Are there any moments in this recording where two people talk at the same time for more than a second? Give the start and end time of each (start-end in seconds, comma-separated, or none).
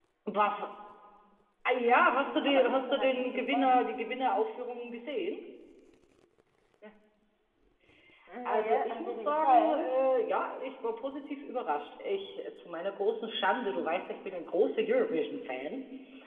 2.1-3.9, 8.5-9.8